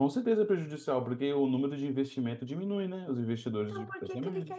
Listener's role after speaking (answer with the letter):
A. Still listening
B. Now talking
B